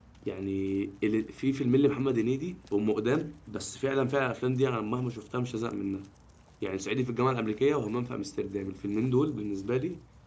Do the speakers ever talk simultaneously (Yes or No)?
No